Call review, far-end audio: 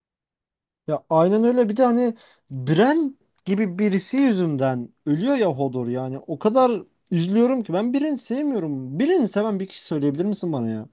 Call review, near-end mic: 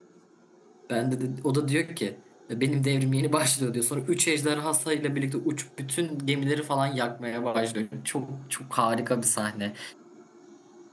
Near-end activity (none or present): present